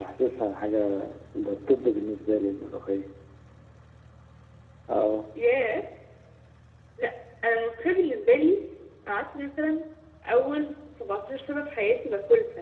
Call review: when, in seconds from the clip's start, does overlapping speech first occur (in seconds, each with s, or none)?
none